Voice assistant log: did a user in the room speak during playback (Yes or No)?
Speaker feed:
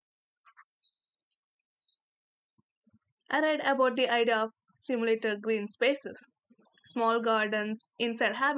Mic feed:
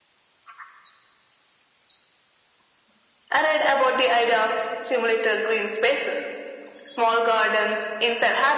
No